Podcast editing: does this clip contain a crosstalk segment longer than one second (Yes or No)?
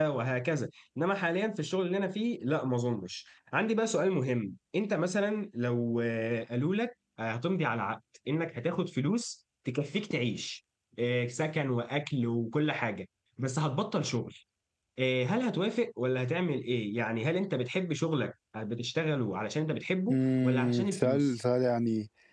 Yes